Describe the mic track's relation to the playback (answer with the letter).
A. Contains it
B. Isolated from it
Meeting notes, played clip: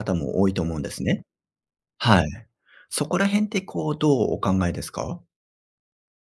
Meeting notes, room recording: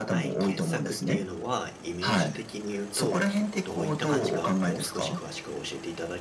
A